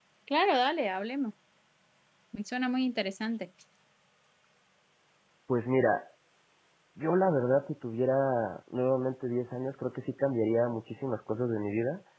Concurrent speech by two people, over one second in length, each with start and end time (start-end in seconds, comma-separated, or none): none